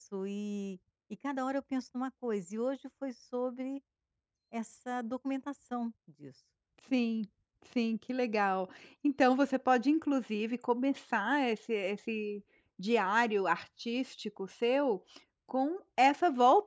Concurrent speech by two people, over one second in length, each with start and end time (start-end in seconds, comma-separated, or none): none